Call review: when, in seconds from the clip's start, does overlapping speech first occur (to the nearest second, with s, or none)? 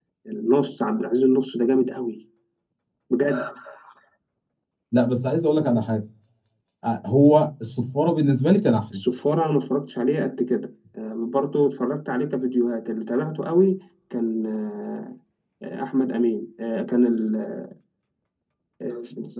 none